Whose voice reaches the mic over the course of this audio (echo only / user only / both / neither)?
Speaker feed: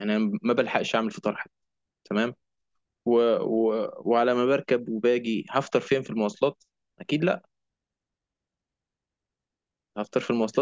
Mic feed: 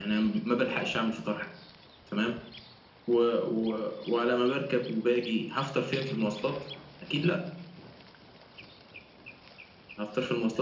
echo only